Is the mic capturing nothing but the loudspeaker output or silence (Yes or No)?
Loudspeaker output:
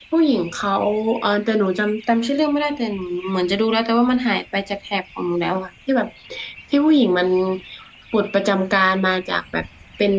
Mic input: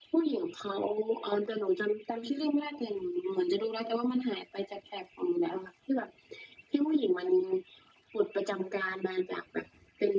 Yes